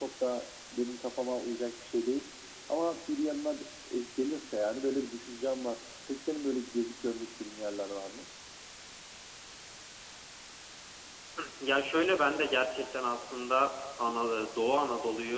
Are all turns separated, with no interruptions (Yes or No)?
Yes